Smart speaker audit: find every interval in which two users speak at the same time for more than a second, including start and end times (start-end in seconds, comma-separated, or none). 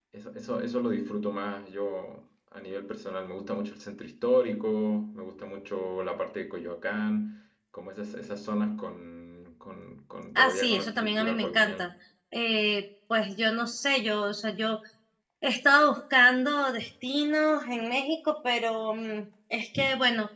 10.3-11.9